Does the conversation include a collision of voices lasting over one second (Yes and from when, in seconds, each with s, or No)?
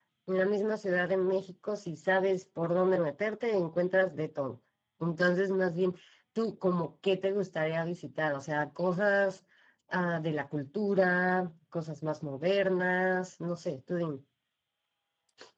No